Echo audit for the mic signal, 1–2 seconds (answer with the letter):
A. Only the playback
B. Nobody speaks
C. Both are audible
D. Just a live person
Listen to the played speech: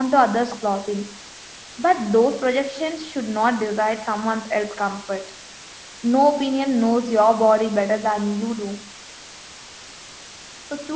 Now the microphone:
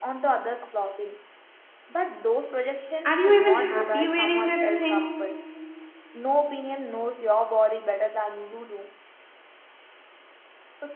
A